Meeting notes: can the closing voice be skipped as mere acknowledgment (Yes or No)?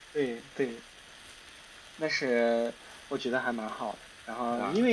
Yes